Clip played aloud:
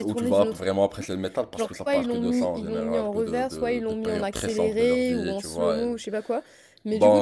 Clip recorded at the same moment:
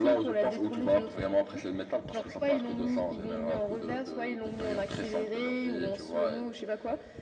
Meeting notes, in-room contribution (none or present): none